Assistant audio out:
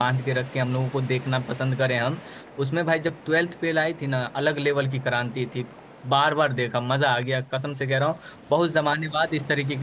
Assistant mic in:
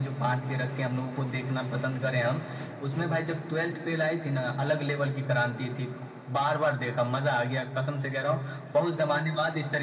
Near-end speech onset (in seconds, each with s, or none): none